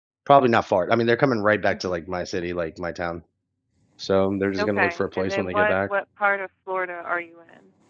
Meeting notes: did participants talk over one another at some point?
Yes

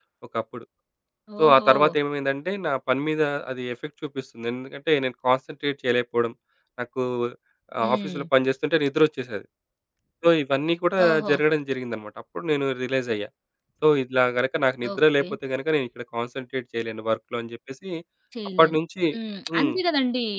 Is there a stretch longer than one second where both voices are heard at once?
No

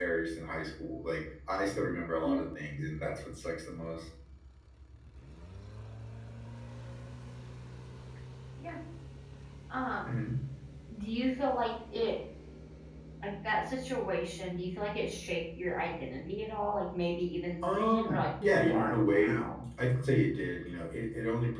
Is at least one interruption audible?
Yes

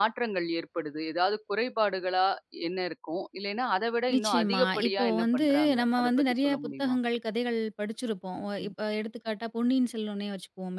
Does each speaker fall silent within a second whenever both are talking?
No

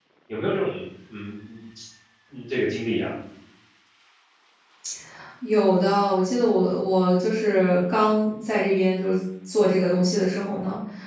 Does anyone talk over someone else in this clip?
No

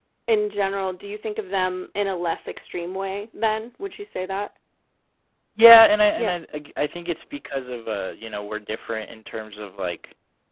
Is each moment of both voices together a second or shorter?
Yes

